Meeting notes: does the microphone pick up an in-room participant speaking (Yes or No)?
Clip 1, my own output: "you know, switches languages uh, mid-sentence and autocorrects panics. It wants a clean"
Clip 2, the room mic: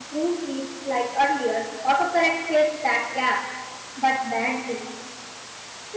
Yes